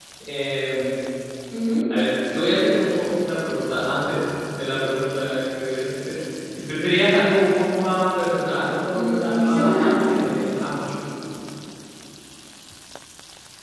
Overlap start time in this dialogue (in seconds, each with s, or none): 8.9 s